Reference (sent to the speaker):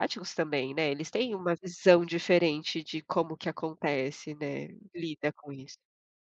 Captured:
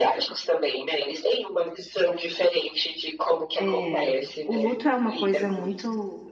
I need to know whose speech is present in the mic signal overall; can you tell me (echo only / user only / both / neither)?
both